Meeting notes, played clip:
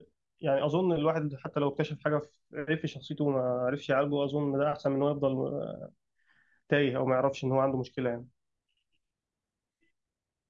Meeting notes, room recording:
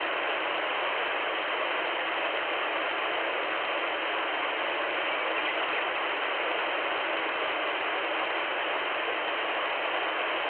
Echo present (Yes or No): No